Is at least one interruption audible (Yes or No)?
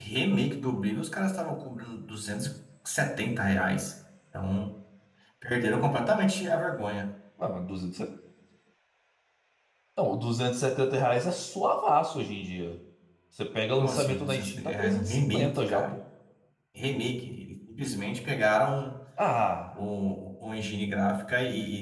Yes